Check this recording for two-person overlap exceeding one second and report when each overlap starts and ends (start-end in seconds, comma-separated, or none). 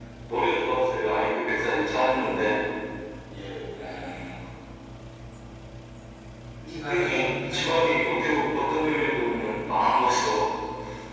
6.8-8.7